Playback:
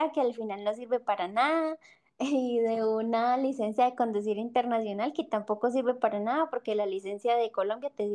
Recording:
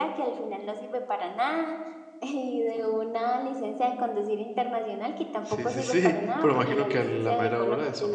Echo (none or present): present